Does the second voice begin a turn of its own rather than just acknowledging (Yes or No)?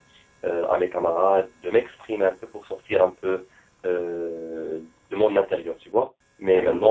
No